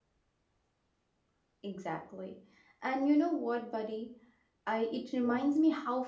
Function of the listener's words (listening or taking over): listening